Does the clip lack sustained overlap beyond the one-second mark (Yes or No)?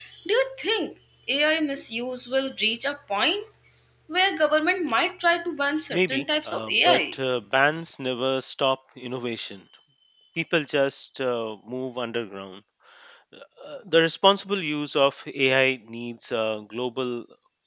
No